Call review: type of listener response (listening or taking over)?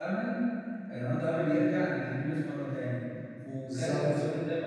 listening